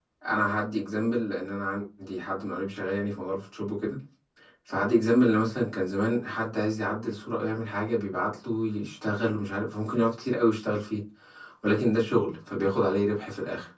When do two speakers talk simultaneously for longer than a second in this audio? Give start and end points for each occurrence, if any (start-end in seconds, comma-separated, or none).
none